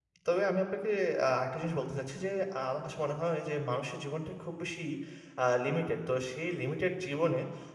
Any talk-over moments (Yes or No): No